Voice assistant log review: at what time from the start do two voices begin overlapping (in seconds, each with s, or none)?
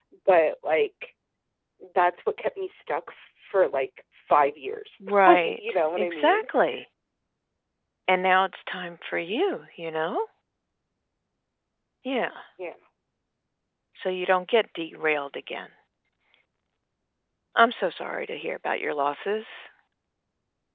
5.3 s